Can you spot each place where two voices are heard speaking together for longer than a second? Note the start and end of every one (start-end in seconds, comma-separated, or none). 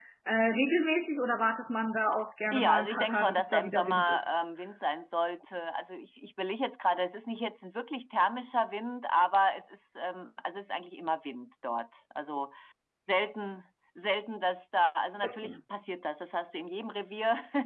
2.5-4.3